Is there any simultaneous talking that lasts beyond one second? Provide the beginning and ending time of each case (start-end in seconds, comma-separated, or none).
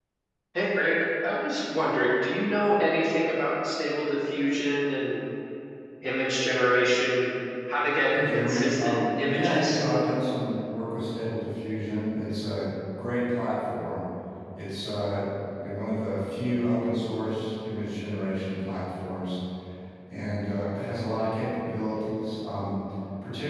8.1-9.8